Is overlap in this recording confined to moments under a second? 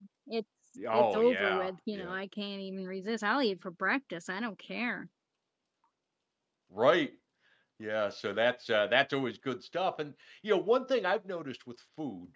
No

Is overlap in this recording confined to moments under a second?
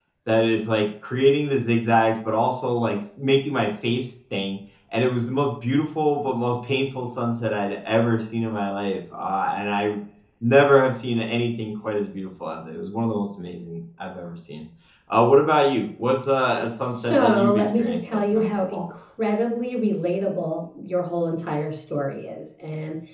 No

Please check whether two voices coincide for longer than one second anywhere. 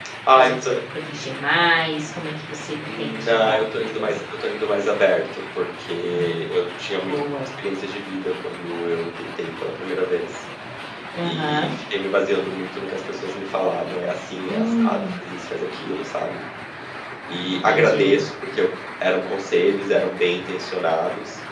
Yes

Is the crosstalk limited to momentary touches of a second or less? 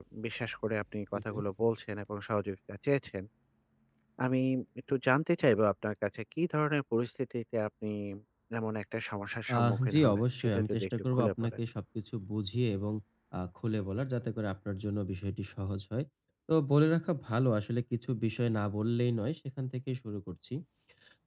No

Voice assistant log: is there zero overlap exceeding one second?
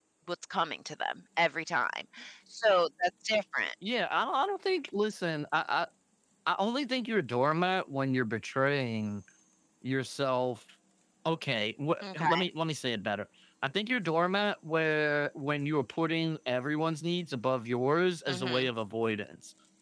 Yes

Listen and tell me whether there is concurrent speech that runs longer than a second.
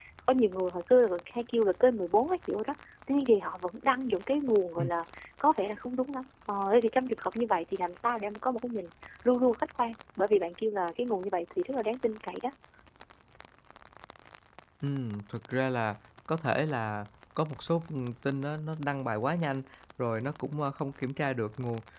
No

